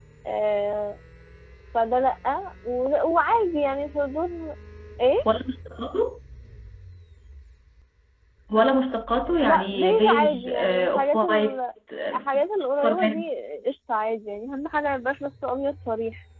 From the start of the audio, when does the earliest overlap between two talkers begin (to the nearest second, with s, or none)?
9 s